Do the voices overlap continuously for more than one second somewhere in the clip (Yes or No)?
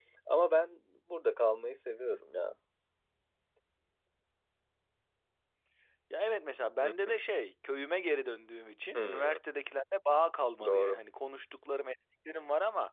No